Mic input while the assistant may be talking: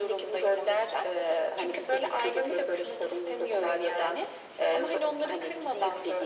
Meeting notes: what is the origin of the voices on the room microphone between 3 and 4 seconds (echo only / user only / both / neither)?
echo only